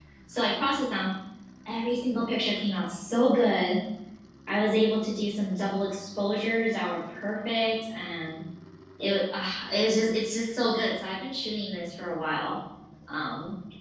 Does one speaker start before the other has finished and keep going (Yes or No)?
No